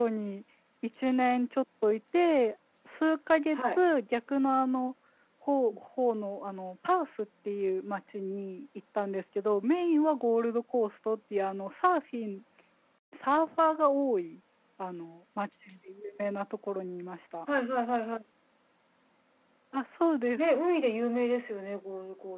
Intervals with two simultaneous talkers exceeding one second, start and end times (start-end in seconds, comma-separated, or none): none